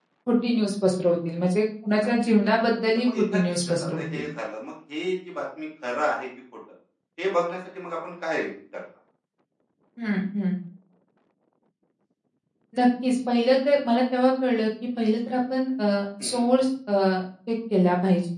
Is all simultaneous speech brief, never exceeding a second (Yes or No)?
No